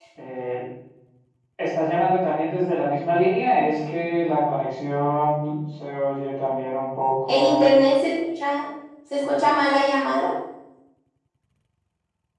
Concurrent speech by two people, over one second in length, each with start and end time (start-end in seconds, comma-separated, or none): none